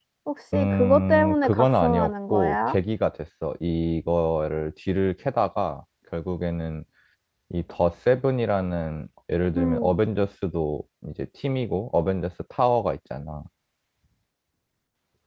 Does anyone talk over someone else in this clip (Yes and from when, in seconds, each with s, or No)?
Yes, from 0.5 s